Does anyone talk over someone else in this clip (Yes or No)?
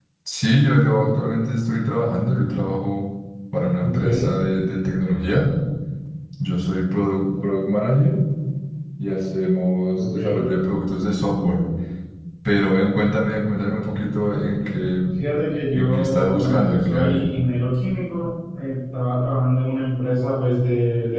Yes